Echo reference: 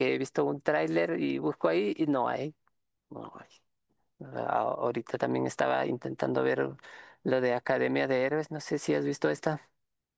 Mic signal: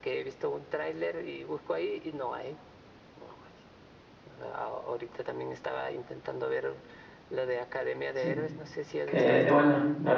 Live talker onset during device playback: 8 s

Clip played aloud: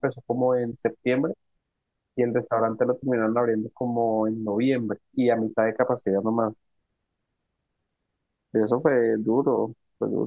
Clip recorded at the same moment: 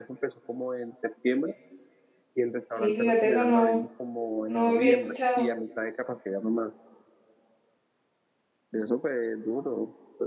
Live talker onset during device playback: 3 s

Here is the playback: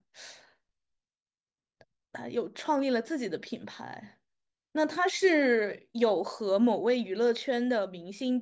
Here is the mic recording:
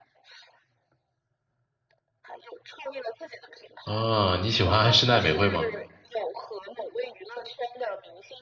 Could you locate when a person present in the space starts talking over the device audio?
4 s

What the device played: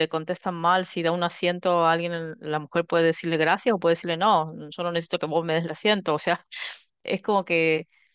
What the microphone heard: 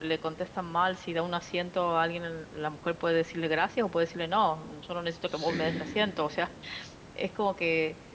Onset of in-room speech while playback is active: 5 s

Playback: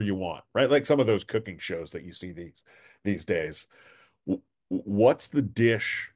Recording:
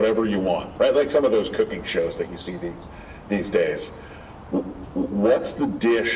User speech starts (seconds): none

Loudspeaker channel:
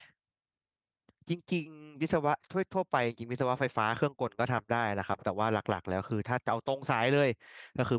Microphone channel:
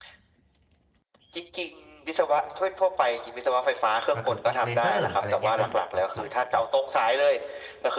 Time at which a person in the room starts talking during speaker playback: 4 s

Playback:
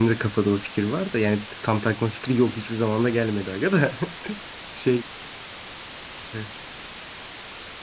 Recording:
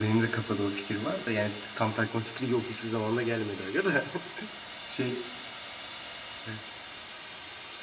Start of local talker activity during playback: none

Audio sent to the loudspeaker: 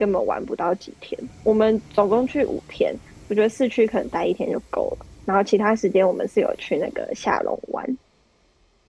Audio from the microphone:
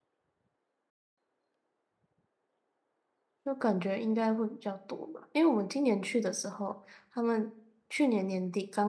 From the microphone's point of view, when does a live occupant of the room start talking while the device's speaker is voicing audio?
3 s

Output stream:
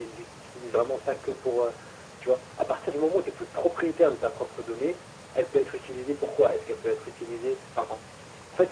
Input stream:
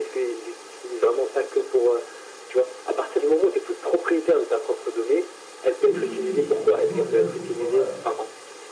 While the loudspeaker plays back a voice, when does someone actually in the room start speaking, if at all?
6 s

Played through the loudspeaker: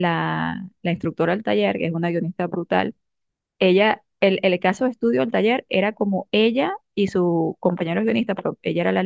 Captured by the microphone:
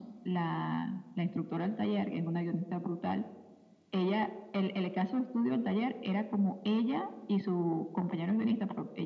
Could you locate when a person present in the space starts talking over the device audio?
none

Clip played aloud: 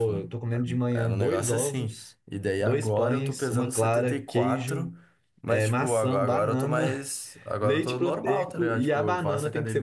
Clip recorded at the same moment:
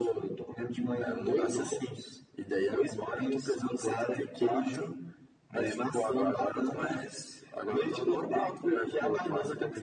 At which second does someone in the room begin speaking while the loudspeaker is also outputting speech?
none

